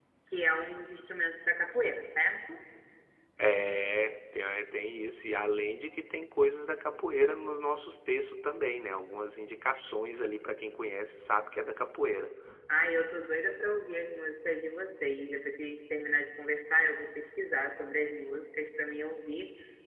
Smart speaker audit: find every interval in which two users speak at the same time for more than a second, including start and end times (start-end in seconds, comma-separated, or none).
none